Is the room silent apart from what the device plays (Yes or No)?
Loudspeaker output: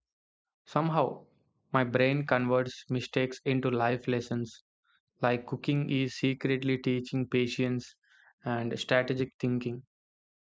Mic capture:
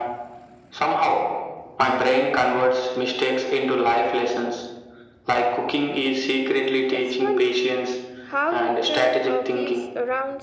No